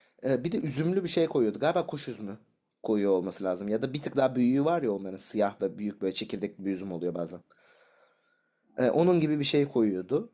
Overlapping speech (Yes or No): No